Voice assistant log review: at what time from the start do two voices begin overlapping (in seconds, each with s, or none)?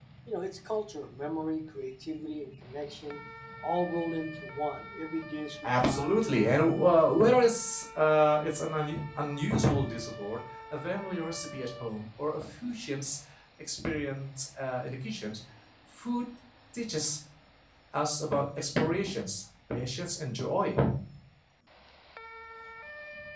5.6 s